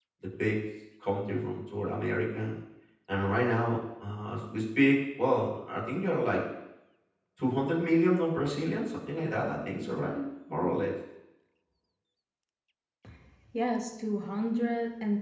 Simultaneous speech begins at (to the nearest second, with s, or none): none